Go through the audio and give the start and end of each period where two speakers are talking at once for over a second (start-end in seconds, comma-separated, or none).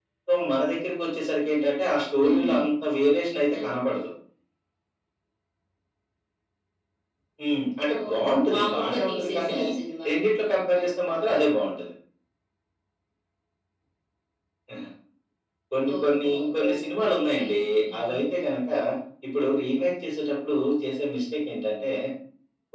8.1-9.6, 15.9-17.5